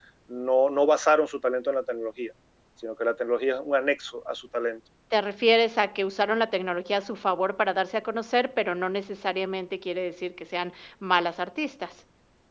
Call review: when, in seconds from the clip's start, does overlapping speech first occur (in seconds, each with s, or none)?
none